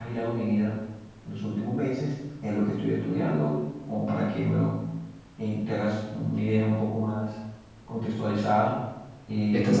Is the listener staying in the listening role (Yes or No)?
No